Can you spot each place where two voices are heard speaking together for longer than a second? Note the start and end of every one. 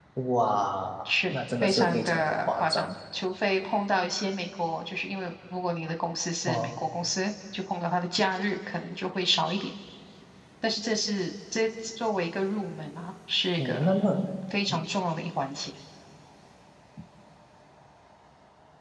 1.1-3.0

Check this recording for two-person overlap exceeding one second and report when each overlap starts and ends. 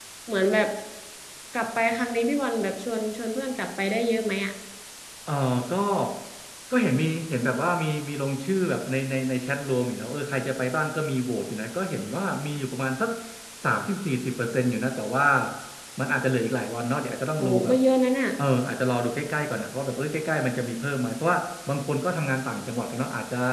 none

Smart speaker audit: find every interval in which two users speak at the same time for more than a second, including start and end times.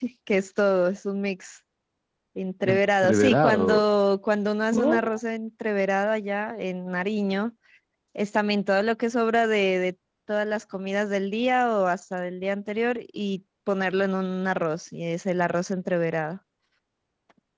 2.6-3.9

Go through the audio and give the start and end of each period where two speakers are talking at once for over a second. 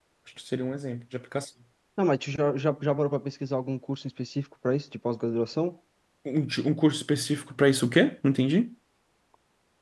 none

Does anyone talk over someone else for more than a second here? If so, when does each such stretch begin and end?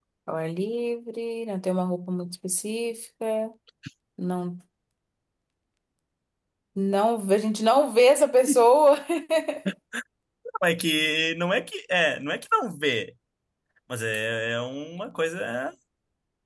none

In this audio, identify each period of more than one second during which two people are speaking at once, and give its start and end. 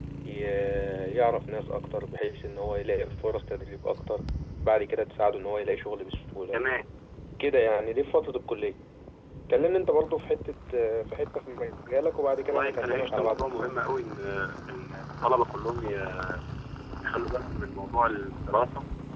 12.4-13.7

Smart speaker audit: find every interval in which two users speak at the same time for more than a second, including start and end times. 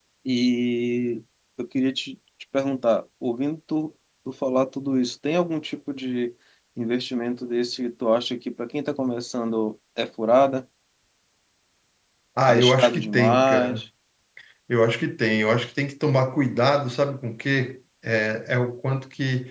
12.5-13.8

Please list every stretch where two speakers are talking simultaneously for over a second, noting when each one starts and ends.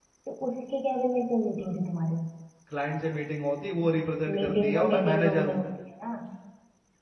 4.3-5.6

